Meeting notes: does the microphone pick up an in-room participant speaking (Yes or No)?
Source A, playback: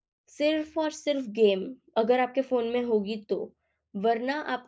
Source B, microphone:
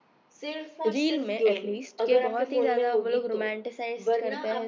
Yes